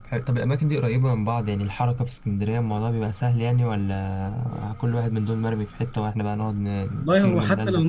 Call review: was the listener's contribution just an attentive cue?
No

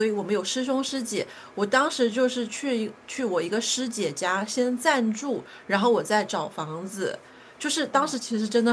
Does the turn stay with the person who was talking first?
Yes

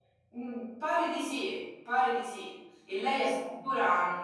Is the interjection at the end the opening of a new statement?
No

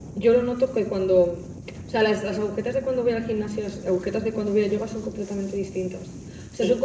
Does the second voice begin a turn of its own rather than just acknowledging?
No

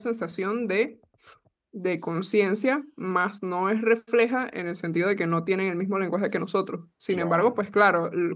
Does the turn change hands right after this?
No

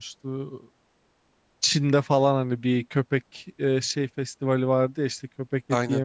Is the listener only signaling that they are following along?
Yes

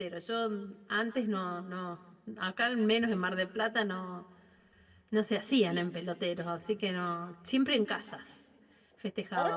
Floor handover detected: Yes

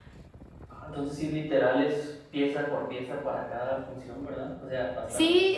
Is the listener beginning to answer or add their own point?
Yes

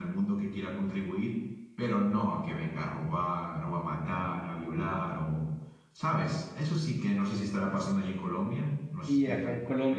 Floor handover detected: Yes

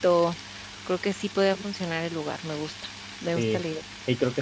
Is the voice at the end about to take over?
Yes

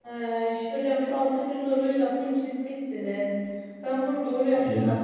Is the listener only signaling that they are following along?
Yes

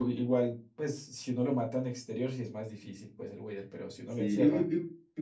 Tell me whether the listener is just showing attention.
No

